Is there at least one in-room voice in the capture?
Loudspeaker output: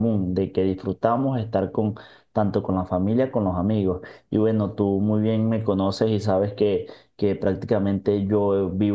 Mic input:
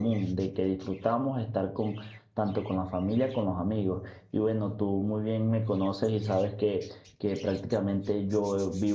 No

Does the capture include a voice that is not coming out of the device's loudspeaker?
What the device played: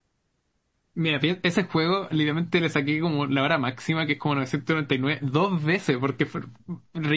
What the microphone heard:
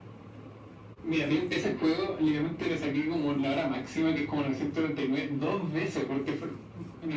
No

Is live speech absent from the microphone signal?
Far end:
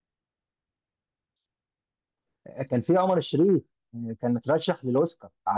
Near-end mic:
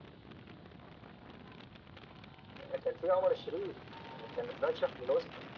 Yes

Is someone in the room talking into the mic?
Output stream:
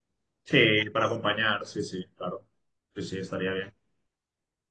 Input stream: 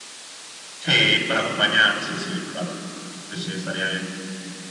No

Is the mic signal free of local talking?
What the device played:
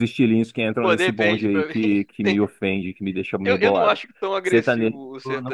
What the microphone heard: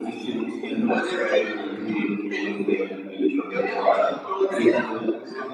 Yes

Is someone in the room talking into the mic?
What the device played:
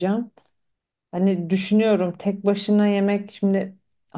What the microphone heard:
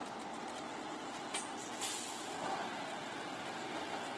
No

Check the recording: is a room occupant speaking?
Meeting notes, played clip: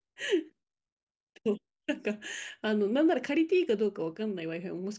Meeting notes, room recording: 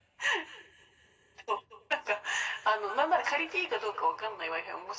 No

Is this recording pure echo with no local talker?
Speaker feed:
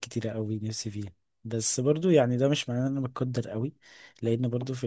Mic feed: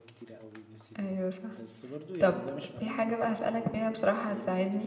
No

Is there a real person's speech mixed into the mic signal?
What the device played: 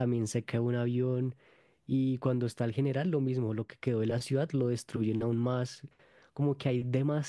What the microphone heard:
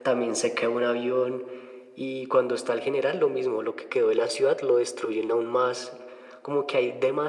No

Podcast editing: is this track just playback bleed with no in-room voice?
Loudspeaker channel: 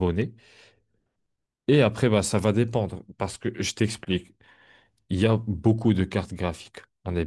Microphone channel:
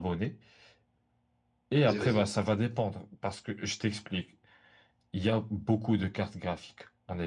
No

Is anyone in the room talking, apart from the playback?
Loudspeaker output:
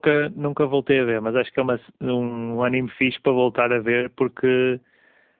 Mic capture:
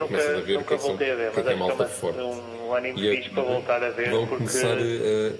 Yes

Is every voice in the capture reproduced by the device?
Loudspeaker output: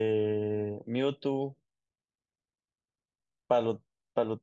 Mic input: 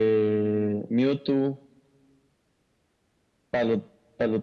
Yes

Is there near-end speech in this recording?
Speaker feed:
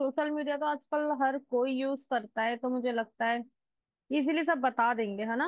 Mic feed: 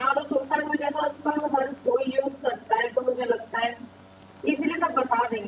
No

